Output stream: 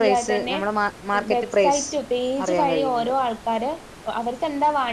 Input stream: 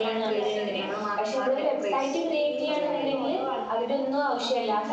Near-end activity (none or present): present